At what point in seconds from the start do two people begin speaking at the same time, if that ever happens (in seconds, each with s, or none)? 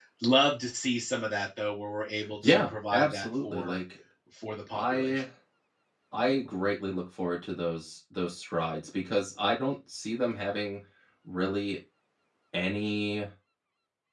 2.4 s